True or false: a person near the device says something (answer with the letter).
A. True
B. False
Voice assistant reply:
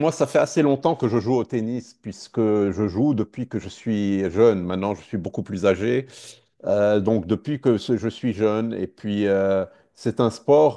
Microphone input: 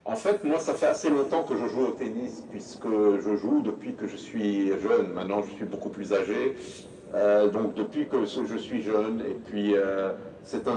B